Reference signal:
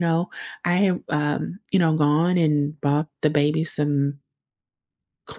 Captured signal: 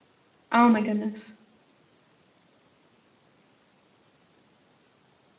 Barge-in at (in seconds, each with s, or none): 0.5 s